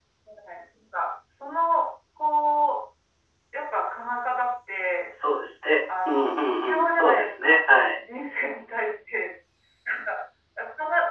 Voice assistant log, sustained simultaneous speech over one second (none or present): present